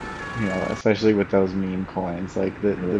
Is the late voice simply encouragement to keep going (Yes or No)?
Yes